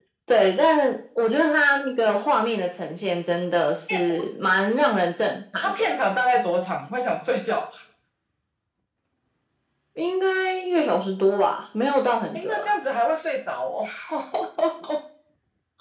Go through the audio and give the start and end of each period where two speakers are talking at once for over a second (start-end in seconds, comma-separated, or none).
none